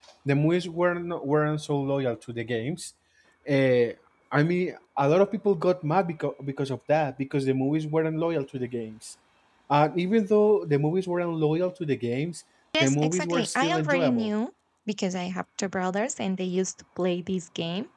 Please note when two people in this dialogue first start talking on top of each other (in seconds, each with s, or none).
12.7 s